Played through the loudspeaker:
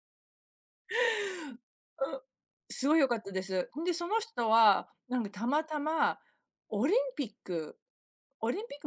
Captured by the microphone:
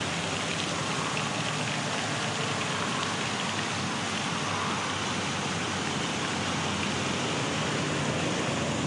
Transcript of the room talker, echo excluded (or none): none